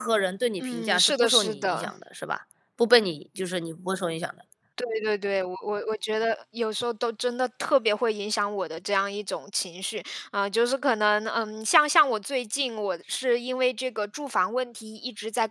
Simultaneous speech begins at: 0.6 s

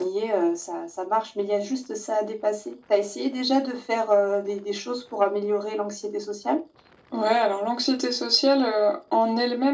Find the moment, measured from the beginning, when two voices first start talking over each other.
none

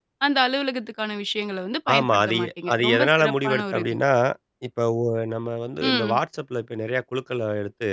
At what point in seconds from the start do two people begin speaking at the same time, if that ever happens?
2.0 s

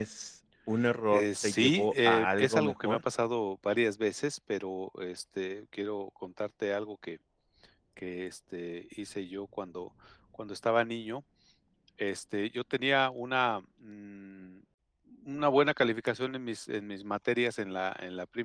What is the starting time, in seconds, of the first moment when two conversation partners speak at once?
1.1 s

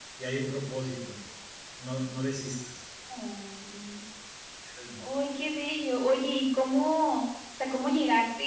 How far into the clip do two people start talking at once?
none

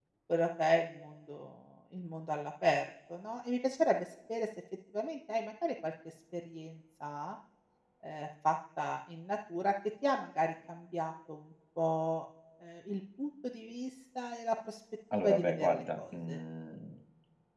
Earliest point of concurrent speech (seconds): 15.1 s

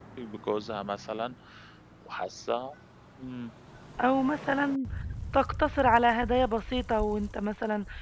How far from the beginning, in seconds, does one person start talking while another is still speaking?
none

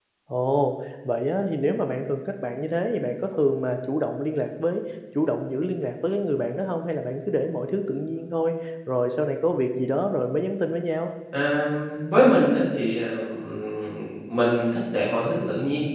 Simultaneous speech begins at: none

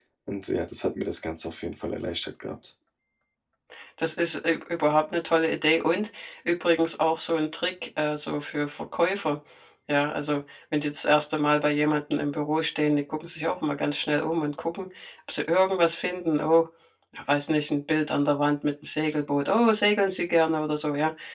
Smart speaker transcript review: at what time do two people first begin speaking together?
none

